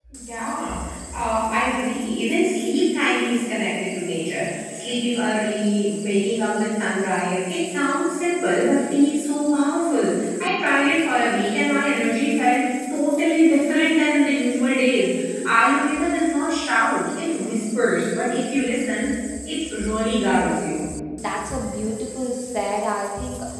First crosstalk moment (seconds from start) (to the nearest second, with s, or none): none